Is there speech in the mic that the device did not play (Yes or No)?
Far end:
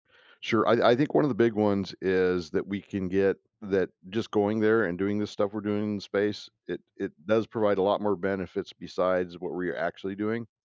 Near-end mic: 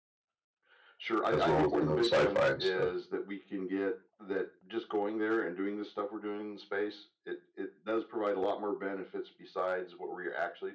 Yes